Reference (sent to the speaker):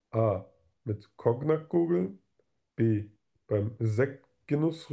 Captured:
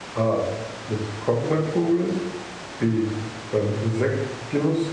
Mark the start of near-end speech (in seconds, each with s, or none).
none